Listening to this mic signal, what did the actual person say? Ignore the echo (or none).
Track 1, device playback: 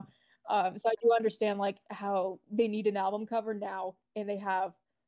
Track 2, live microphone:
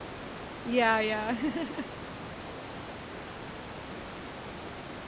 Yeah, yeah.